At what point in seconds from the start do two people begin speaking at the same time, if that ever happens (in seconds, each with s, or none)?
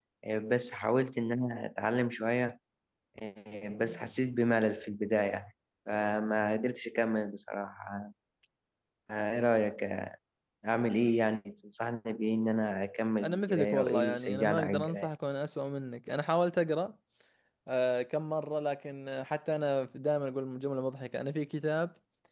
13.2 s